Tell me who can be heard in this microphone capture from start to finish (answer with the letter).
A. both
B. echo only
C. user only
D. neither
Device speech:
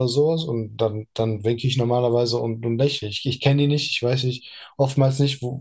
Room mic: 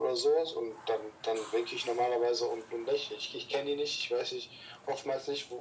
B